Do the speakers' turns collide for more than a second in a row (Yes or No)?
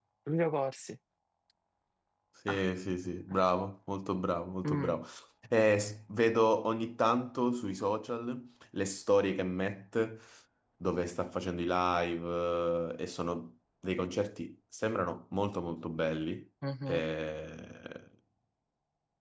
No